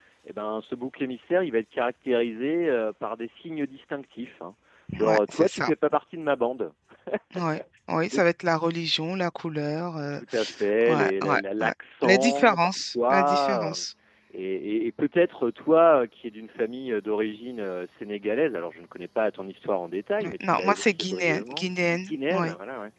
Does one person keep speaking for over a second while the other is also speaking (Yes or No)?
Yes